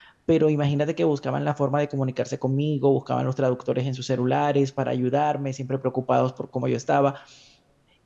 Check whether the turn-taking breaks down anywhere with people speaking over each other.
No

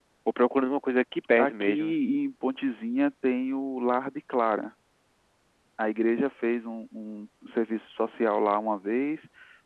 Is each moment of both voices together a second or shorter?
Yes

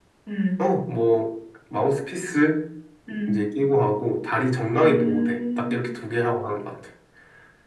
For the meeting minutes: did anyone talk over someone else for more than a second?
Yes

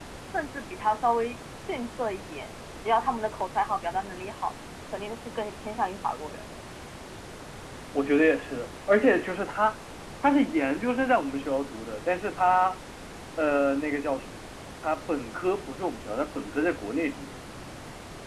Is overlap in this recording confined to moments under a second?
Yes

